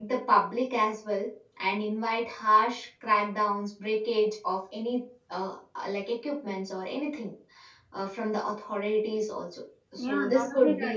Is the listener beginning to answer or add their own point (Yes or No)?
Yes